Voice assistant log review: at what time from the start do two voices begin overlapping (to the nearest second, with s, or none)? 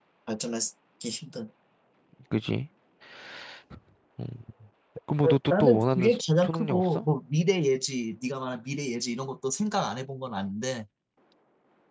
5 s